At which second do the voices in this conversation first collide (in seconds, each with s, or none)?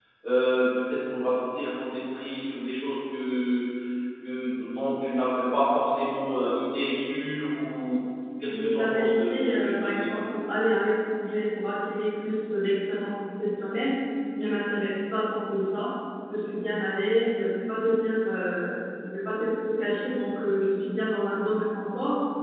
8.4 s